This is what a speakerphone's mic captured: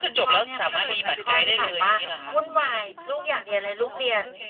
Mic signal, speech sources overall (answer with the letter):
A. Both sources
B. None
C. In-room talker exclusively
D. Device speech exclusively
A